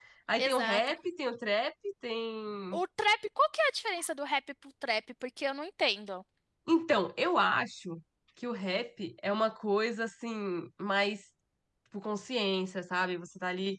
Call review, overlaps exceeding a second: none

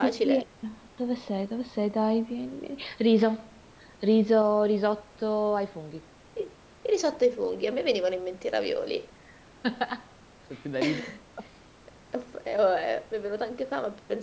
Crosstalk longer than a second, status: none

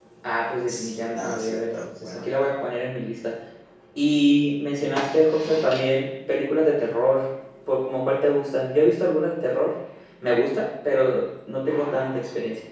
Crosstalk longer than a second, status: present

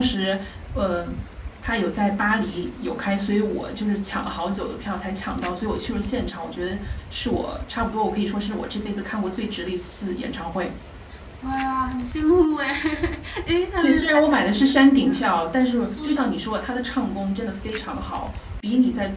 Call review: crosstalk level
present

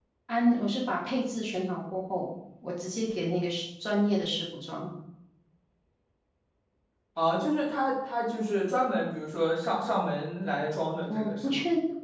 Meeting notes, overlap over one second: none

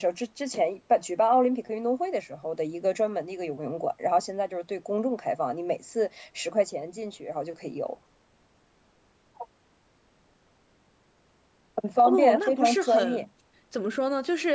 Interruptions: present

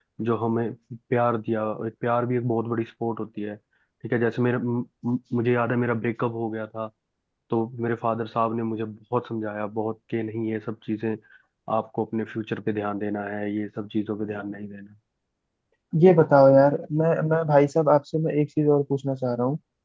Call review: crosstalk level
none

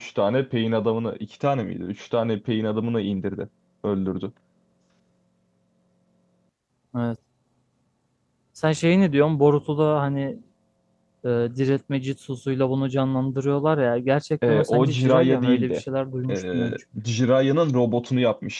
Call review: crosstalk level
present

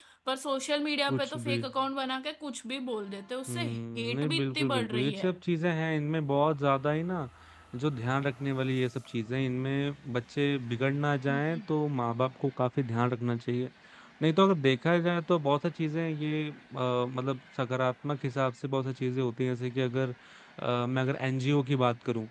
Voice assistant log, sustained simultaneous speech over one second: present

